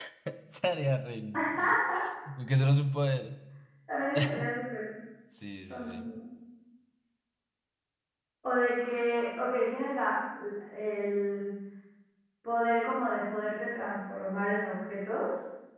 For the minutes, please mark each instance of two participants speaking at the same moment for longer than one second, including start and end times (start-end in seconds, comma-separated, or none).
none